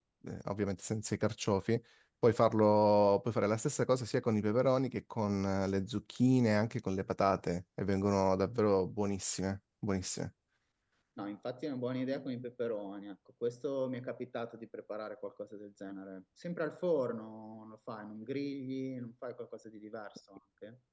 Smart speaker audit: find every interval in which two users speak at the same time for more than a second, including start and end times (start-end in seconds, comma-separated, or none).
none